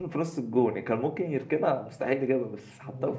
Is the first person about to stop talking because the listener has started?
Yes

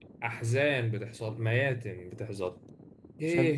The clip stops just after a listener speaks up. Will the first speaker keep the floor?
Yes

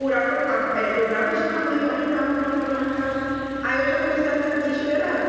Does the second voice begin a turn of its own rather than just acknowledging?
No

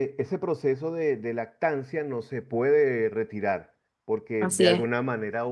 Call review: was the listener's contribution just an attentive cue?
Yes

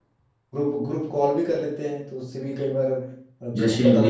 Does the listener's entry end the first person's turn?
Yes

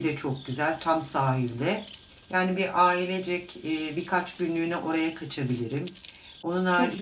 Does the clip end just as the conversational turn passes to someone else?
Yes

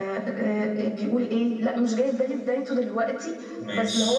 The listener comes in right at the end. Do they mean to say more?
No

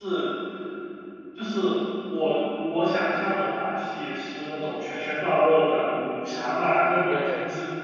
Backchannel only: Yes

